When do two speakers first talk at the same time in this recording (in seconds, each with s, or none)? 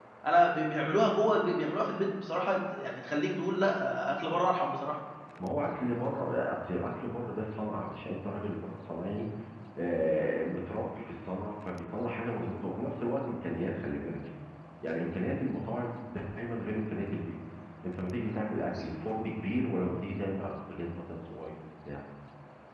none